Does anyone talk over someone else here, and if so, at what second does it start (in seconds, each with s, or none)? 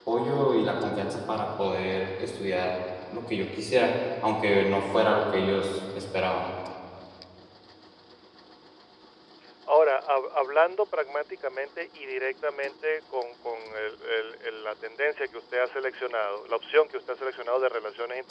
none